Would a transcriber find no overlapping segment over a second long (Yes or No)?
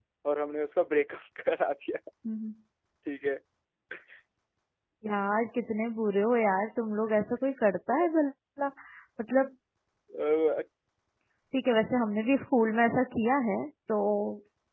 Yes